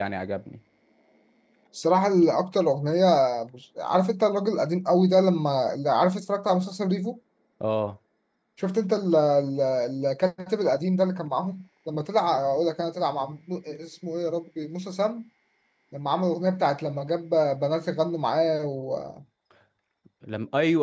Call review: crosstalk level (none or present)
none